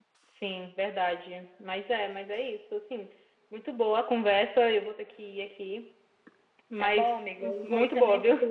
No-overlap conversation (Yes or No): No